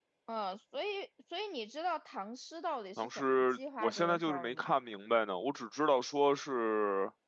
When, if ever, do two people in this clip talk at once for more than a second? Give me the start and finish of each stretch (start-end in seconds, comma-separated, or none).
3.0-4.7